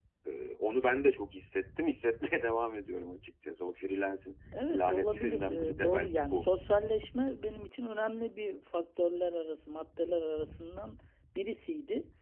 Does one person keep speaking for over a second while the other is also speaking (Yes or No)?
Yes